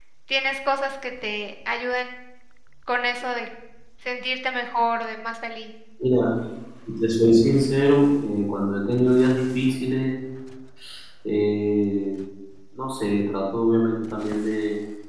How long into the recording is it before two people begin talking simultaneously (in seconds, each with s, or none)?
none